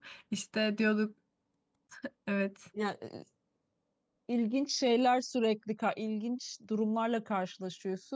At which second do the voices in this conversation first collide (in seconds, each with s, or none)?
none